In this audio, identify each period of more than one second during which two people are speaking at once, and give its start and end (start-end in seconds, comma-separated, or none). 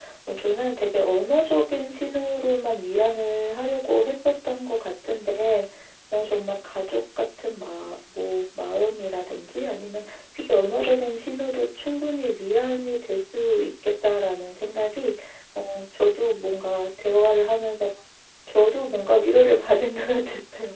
none